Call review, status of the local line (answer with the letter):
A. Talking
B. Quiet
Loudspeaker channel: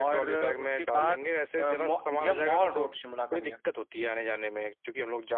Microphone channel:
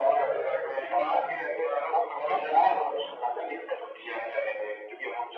B